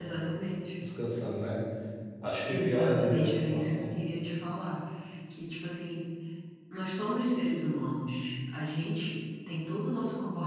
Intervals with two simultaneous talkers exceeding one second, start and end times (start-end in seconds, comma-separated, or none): 2.4-4.0